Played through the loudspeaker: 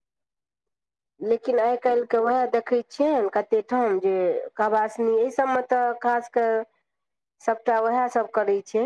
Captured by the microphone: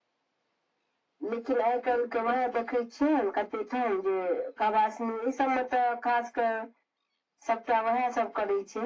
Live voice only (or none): none